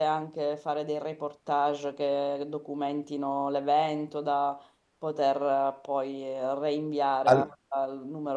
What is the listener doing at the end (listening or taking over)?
listening